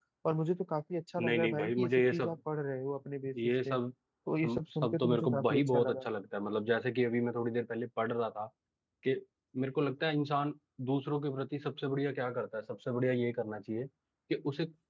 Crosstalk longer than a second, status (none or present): present